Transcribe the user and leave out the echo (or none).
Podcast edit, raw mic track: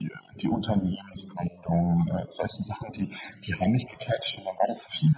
none